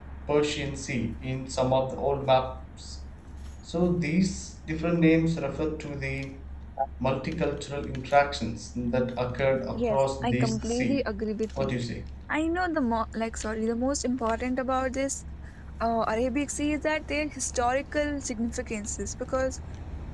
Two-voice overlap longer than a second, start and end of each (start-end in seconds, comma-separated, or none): 9.7-11.1